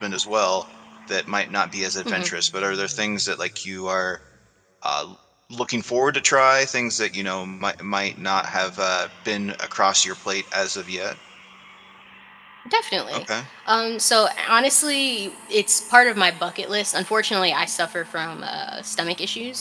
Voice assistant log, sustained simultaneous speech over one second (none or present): none